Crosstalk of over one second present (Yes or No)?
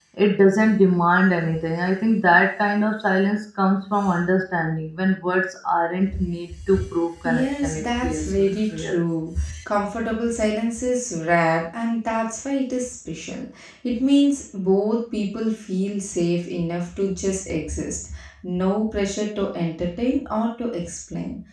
Yes